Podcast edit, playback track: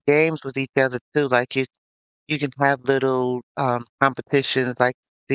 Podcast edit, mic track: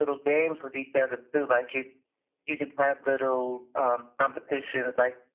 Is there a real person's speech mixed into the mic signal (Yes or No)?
No